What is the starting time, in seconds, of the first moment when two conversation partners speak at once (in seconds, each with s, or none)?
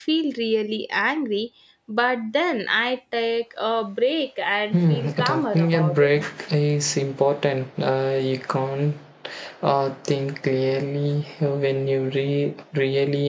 4.7 s